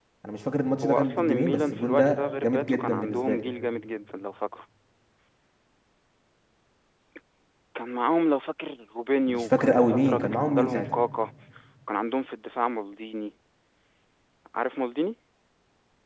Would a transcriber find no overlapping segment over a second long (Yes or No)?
No